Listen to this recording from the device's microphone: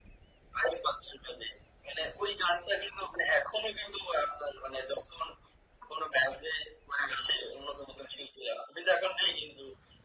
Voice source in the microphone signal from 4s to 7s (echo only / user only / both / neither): echo only